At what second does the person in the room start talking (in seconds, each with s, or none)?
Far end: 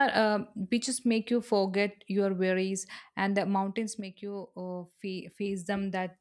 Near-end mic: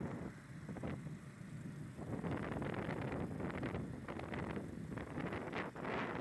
none